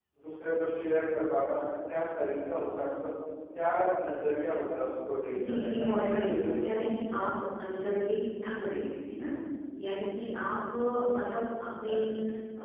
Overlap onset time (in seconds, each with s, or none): 5.3 s